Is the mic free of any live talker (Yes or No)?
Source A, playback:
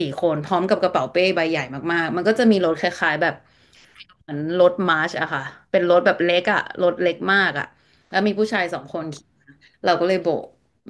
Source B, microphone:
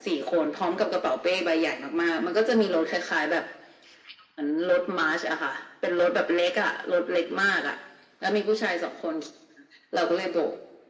Yes